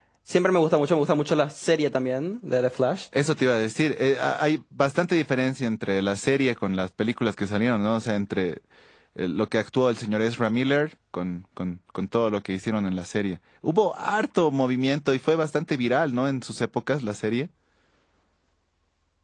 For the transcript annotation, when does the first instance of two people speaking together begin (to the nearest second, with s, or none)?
none